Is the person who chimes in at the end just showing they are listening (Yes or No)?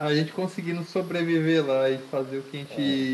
Yes